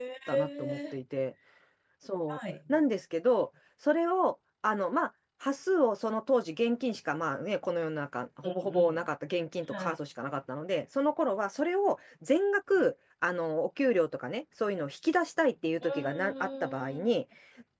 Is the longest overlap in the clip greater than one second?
Yes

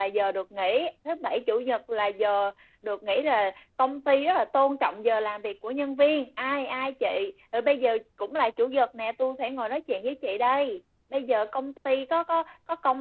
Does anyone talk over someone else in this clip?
No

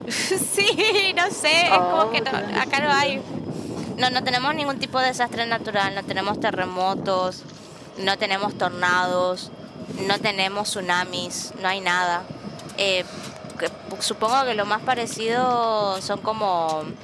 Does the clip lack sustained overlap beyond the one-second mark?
No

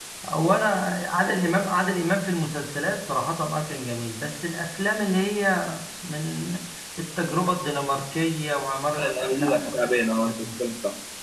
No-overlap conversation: No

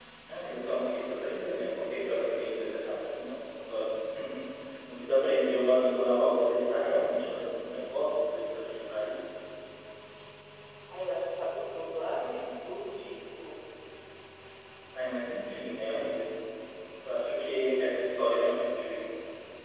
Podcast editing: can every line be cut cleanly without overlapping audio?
Yes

